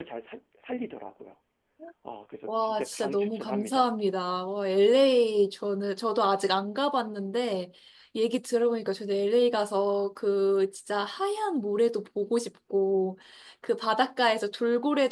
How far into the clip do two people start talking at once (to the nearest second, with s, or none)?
2 s